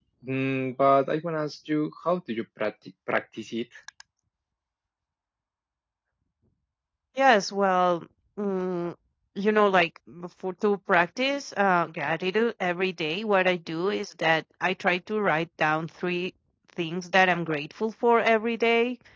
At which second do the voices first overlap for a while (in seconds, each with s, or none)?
none